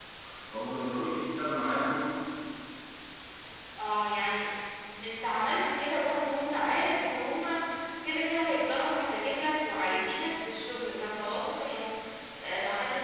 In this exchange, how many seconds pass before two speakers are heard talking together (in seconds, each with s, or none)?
none